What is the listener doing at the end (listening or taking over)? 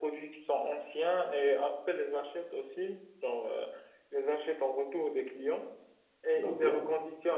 listening